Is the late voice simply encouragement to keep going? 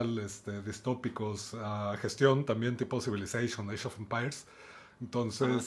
Yes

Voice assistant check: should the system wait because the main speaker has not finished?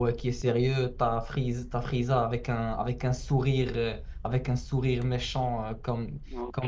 Yes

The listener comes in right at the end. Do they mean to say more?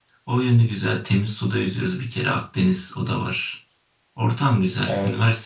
No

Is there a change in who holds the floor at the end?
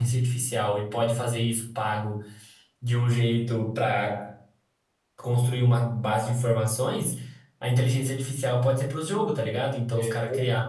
No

